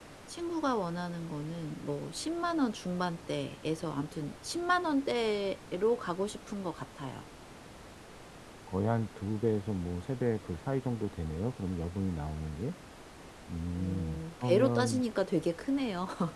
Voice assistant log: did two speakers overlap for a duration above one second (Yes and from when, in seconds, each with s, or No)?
Yes, from 13.8 s